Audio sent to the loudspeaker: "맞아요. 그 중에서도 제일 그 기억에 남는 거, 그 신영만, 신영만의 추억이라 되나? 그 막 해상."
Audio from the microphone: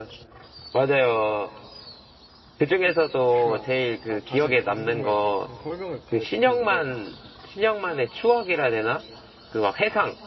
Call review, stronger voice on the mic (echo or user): echo